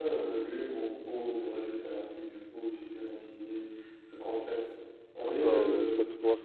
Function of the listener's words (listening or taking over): taking over